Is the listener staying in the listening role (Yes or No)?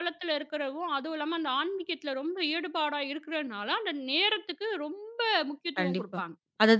No